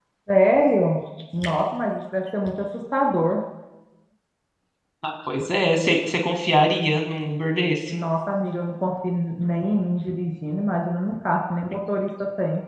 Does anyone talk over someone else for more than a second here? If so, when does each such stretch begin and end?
none

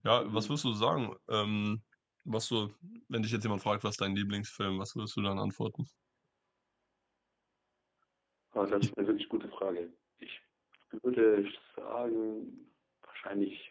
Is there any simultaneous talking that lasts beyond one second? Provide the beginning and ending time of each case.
none

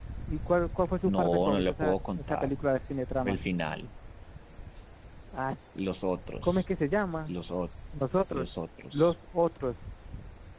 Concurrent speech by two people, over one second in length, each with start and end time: 1.1-2.5

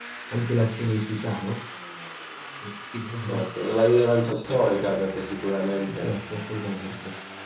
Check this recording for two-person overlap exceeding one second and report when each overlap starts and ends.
none

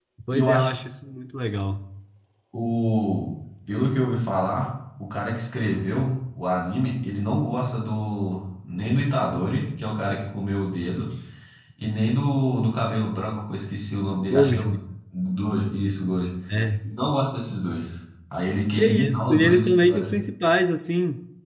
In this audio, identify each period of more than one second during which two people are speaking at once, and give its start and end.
18.7-20.2

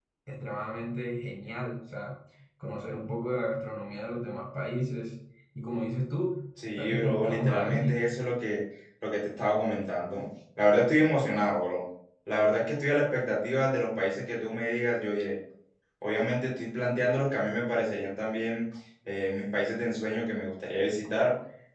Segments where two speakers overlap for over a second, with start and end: 6.7-8.0

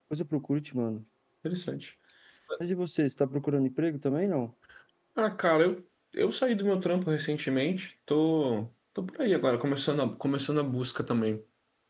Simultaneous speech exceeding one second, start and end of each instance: none

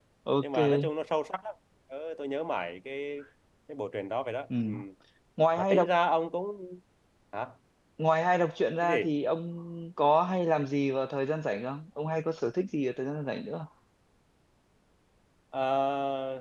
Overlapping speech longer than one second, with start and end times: none

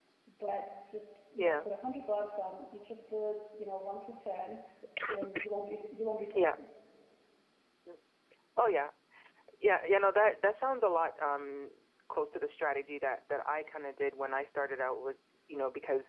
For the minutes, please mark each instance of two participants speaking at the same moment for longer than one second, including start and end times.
none

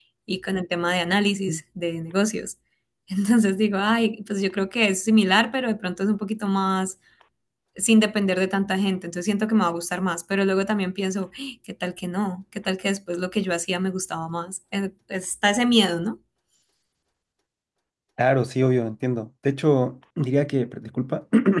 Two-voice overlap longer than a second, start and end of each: none

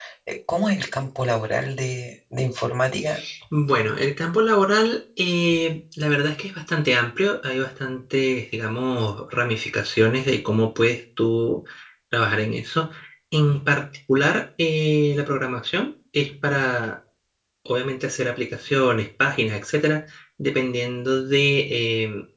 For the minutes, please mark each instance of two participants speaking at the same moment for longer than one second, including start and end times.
none

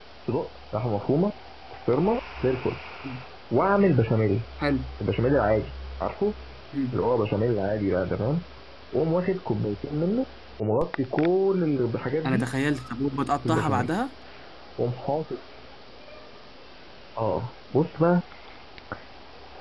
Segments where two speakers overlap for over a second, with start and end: none

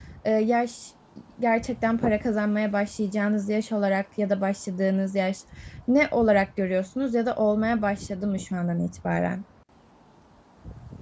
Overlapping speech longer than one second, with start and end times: none

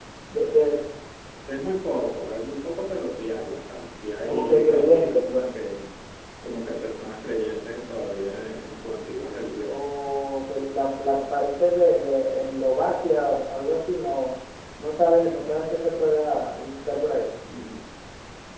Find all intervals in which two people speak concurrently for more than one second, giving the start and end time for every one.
4.2-5.5

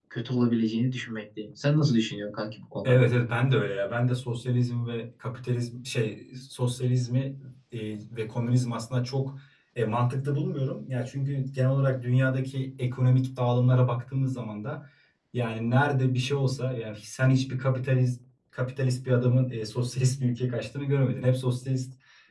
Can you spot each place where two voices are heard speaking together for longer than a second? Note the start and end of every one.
none

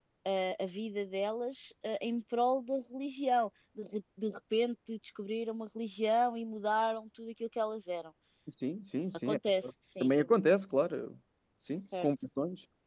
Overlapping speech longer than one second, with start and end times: none

